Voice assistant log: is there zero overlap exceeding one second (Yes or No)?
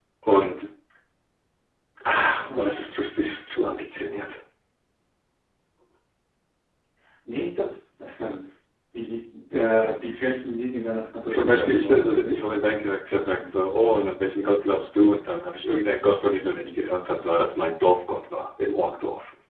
No